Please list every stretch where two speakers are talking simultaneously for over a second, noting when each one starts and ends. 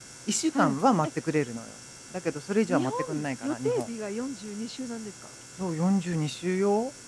2.7-3.9

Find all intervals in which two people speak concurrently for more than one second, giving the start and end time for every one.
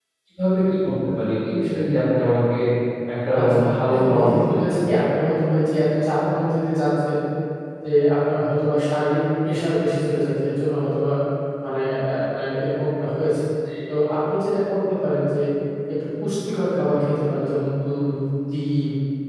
3.4-4.8

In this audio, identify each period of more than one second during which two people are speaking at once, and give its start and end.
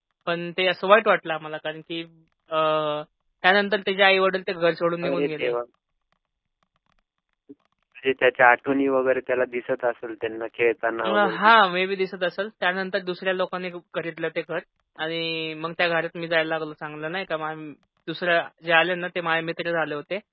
none

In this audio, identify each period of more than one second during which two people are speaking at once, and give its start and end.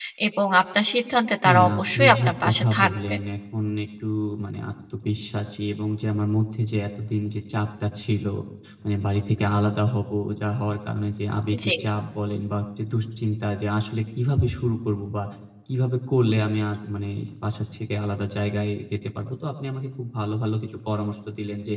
1.5-3.1

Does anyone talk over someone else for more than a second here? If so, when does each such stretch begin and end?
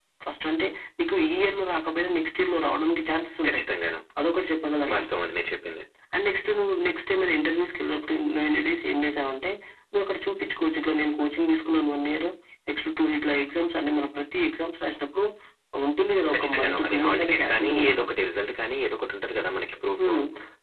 16.3-18.0

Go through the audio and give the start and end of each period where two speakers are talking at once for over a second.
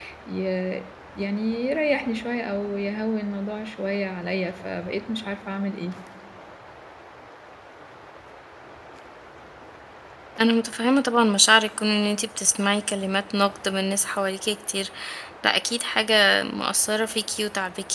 none

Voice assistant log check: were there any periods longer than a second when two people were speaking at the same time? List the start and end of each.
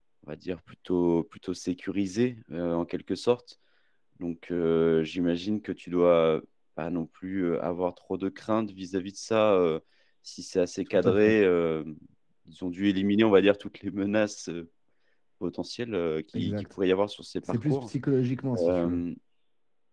none

